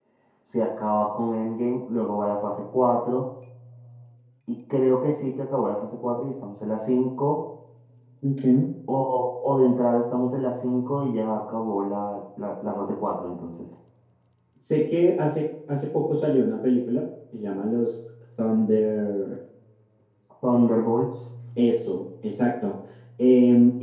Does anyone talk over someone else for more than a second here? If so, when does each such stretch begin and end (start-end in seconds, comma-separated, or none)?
none